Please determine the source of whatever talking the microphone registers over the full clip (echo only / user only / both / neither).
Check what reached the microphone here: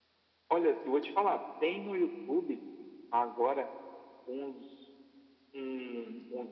echo only